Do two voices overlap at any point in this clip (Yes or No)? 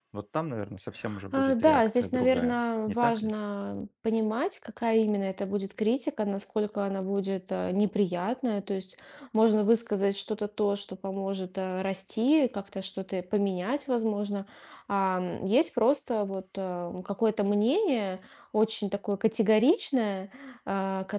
Yes